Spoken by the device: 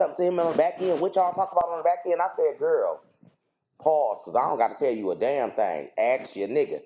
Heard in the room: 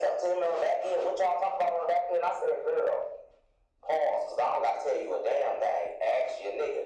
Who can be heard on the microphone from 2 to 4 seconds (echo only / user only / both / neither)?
echo only